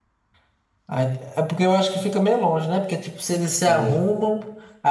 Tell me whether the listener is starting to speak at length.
No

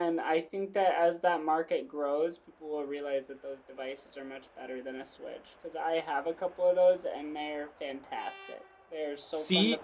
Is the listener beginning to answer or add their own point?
No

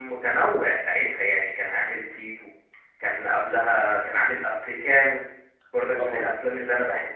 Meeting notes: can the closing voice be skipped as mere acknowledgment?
Yes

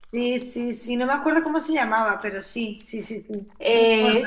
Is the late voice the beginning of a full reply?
Yes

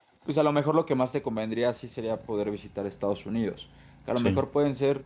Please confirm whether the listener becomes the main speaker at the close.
No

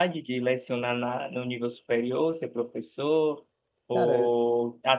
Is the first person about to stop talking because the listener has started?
No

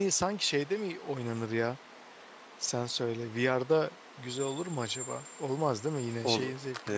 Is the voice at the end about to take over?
Yes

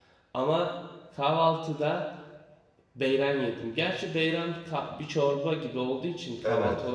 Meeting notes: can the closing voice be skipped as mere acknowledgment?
No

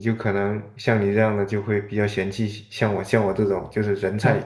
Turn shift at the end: Yes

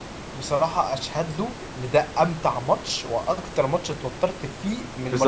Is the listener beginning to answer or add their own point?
Yes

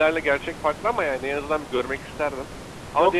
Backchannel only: No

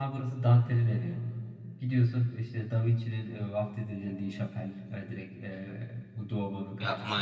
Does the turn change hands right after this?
Yes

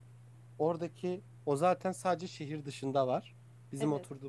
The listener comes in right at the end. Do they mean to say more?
No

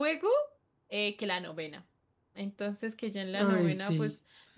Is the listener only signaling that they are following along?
Yes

